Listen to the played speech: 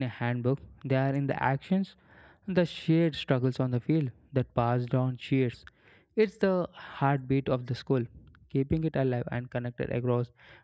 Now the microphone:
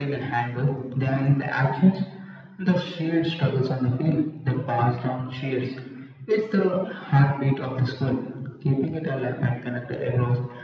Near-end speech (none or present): none